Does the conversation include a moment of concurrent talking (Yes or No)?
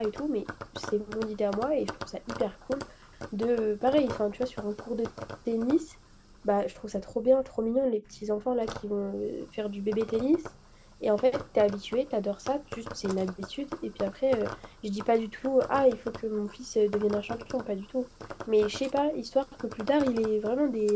No